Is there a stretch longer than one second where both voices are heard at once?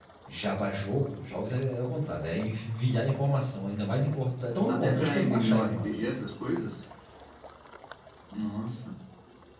Yes, from 4.7 s

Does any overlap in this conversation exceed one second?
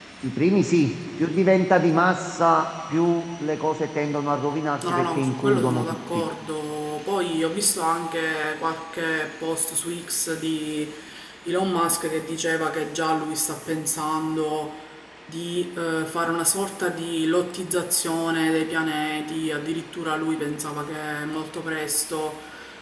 Yes, from 4.8 s

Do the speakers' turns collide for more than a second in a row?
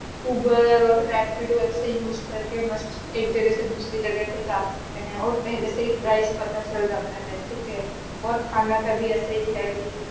No

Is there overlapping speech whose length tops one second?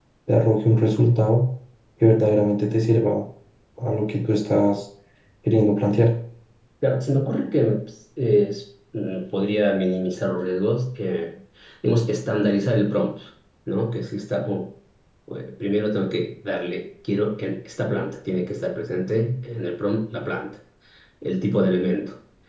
No

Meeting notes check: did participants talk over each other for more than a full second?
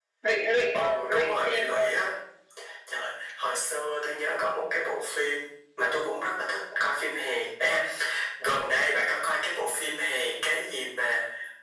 Yes, from 0.7 s

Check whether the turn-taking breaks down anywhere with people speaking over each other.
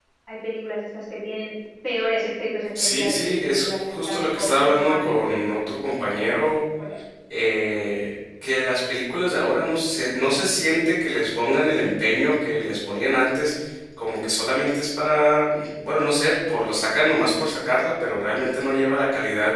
Yes, from 2.8 s

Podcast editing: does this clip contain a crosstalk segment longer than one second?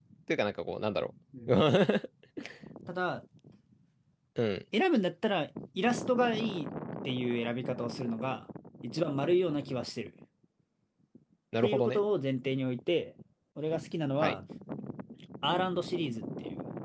No

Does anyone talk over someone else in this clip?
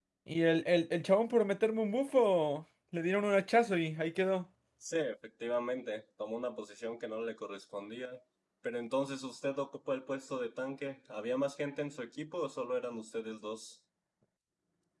No

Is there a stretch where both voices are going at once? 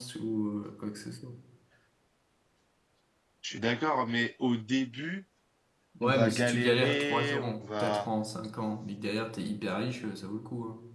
Yes, from 6.0 s

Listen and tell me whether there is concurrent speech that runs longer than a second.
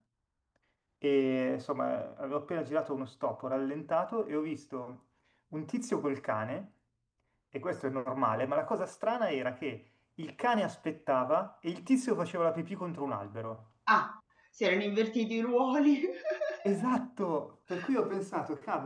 No

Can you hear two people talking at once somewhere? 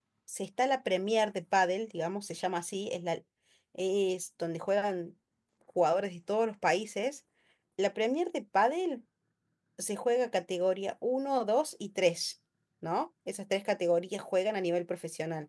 No

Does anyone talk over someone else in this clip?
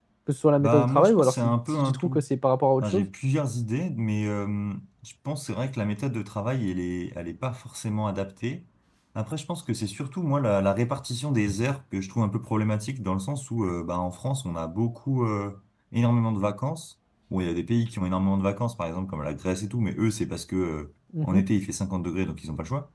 Yes, from 0.6 s

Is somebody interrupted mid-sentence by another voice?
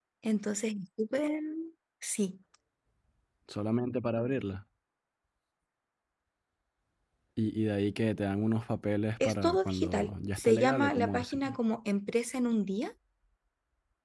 Yes, from 9.2 s

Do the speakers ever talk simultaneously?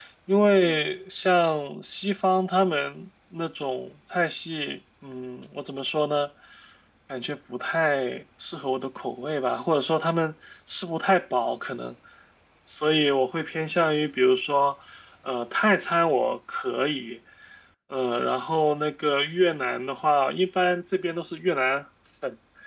No

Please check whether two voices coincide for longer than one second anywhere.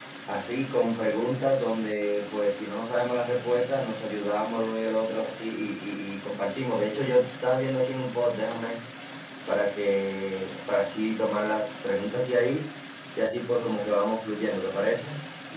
No

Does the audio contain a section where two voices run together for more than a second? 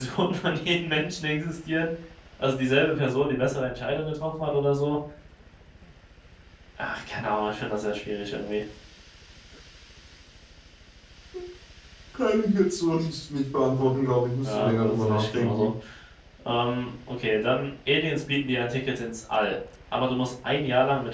Yes, from 14.4 s

